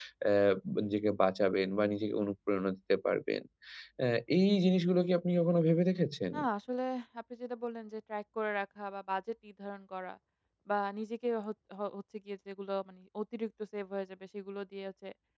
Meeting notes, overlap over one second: none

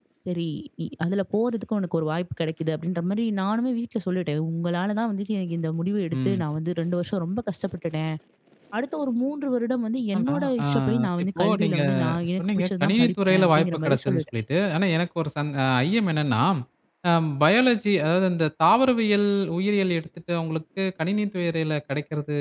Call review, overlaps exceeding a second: present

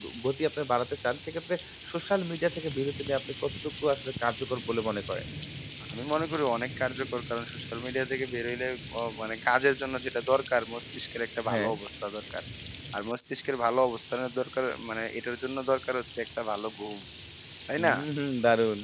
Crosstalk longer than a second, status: none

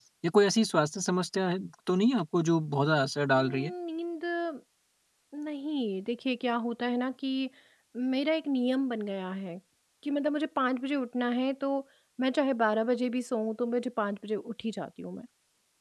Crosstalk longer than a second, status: none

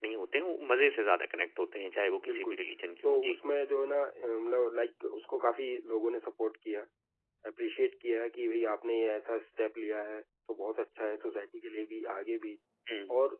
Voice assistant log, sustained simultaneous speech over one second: none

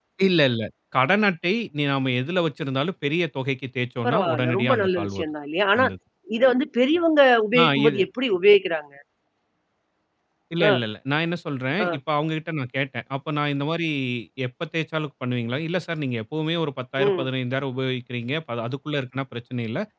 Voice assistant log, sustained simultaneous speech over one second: present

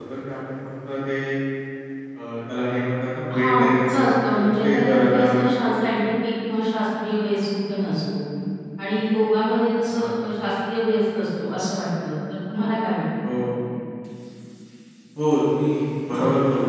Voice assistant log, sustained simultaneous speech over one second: present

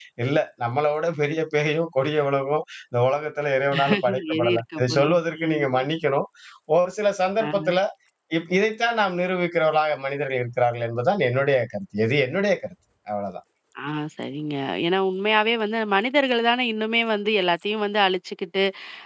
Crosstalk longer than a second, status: present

